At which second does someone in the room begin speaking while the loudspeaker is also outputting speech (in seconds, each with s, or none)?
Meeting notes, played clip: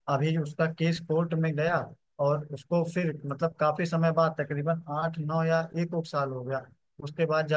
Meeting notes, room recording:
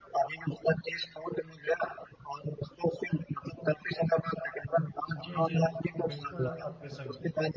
5.1 s